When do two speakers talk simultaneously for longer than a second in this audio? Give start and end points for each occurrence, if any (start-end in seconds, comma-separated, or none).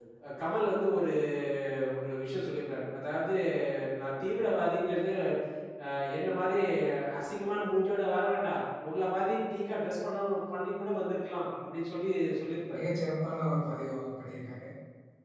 none